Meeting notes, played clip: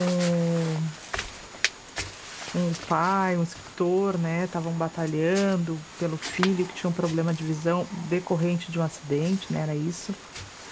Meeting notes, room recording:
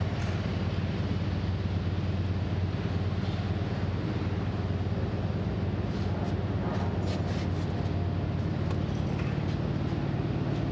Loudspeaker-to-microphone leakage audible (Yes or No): No